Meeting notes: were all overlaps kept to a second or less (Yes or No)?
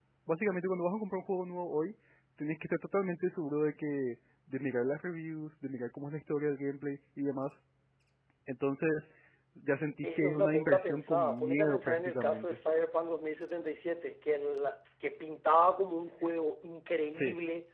No